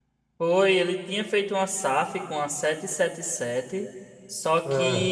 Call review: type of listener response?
listening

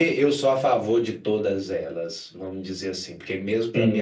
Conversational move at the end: listening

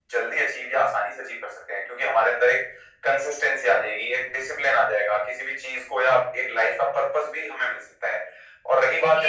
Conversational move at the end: taking over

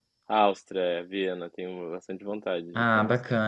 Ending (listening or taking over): taking over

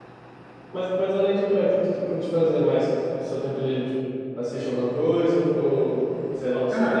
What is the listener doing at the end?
taking over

